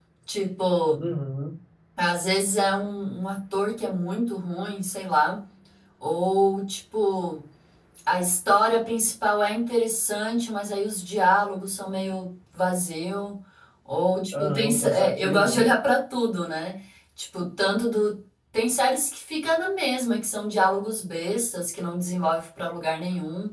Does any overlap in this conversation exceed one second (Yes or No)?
Yes